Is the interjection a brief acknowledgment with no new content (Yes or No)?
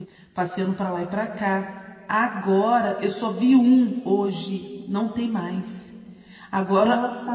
Yes